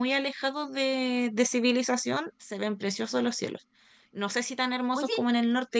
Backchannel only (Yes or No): Yes